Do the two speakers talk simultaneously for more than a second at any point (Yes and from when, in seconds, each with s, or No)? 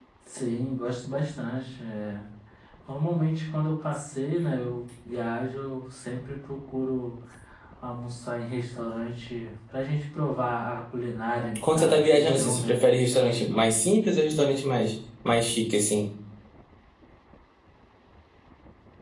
Yes, from 11.6 s